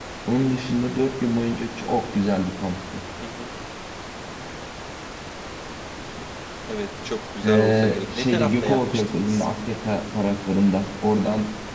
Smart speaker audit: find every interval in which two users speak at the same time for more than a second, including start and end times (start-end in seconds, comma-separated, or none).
7.4-9.4